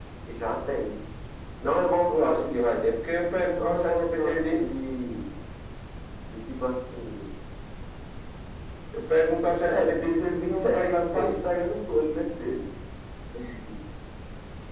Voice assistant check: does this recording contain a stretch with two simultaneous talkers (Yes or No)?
Yes